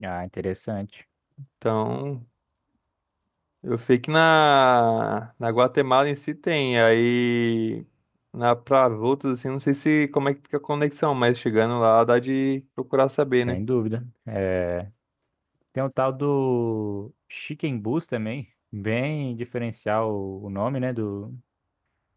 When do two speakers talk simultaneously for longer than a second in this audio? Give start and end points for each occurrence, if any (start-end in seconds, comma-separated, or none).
none